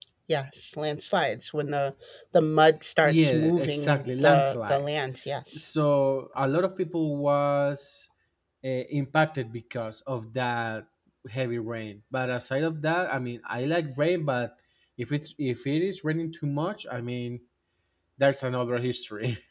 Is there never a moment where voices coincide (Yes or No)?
No